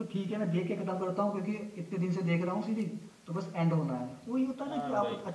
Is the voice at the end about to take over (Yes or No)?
Yes